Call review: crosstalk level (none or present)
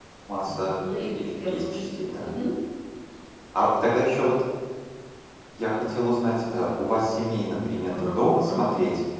present